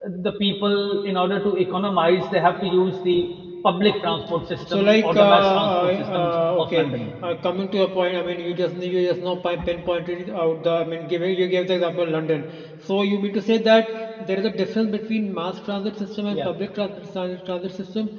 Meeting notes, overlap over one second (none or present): present